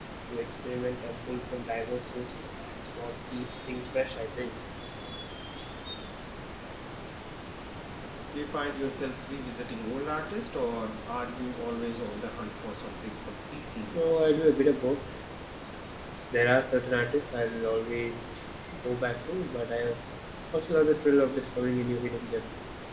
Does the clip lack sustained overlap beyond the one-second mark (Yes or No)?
Yes